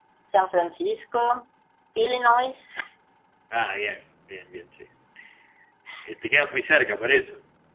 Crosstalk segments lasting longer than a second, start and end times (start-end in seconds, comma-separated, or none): none